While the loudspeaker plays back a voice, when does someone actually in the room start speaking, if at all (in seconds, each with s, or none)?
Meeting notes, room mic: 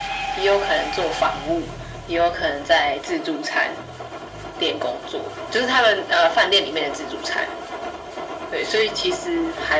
none